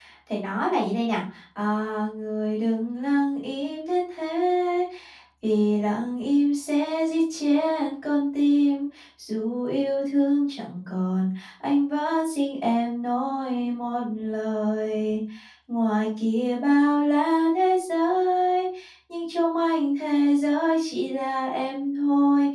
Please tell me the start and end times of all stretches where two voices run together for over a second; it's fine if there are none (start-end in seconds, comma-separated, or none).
none